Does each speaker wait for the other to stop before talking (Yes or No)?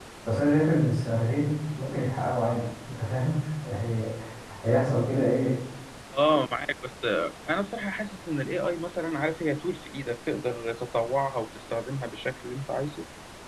Yes